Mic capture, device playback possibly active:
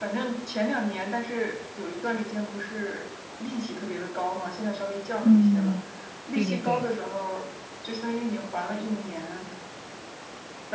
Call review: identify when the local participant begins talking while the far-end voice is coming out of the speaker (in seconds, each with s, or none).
5.2 s